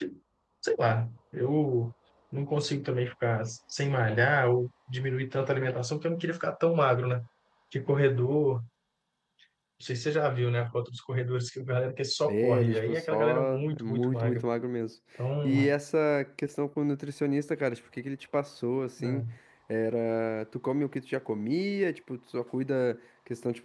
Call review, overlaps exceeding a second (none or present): present